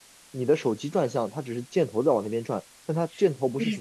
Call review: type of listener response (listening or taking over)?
taking over